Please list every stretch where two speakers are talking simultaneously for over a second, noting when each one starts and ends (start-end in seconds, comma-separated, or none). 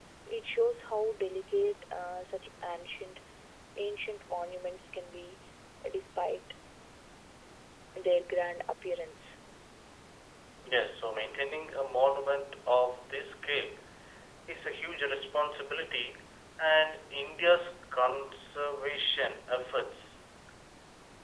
none